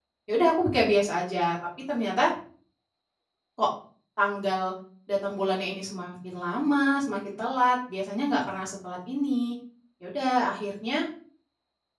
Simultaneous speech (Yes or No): No